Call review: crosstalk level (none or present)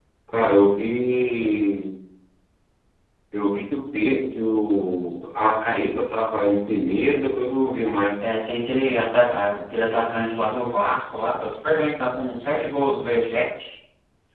none